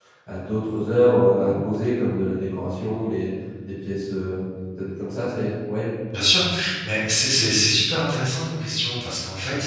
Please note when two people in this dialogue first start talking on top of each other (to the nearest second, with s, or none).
none